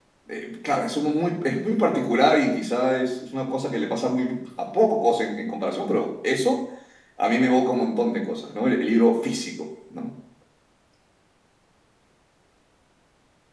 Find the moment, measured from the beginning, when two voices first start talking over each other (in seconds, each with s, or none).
none